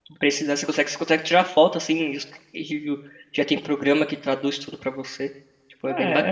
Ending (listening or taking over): taking over